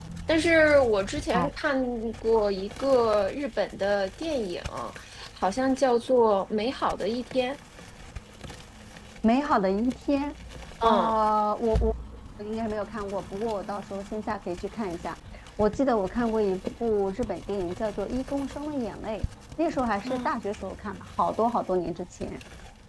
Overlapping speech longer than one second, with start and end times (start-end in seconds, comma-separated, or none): none